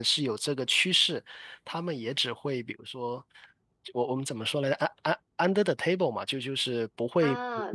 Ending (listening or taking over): taking over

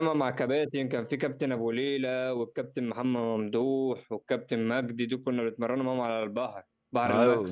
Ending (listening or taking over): taking over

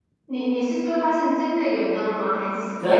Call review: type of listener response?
taking over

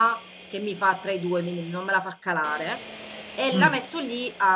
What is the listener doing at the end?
listening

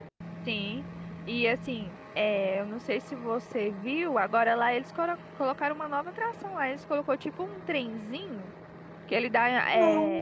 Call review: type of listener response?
listening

